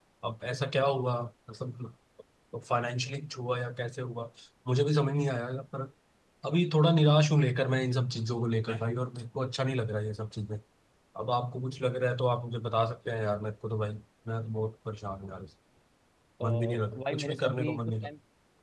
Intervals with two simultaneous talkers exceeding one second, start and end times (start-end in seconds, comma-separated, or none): 16.4-18.1